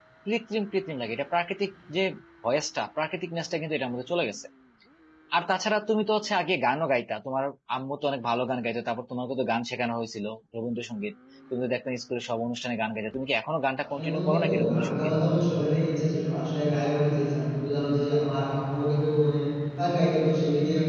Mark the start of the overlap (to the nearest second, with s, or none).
14 s